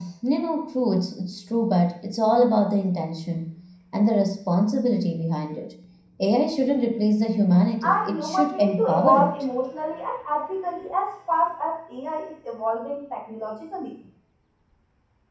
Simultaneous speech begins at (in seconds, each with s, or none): 7.8 s